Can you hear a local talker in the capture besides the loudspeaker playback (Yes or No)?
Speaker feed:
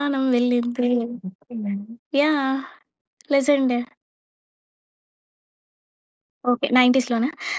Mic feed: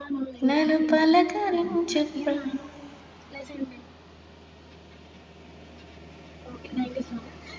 Yes